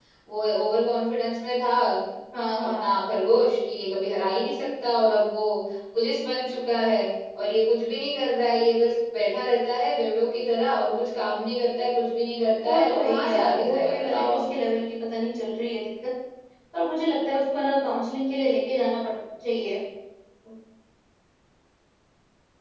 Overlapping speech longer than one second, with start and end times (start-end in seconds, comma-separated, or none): 12.6-14.4